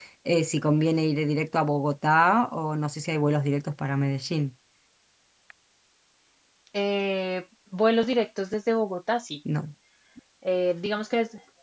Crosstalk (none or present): none